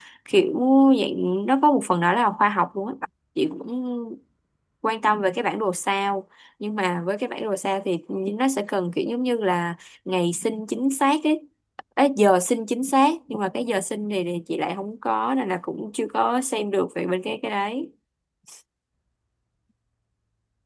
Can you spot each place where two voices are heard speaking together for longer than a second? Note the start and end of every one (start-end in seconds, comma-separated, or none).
none